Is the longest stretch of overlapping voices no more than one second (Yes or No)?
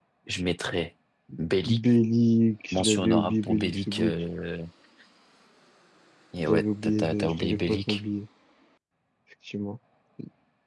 No